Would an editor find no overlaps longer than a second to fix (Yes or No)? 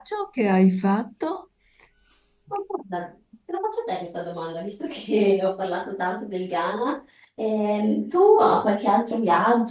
Yes